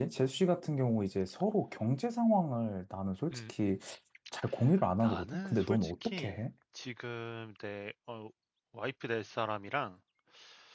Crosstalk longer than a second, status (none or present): present